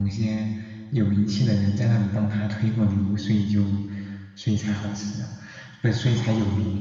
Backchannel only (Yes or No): Yes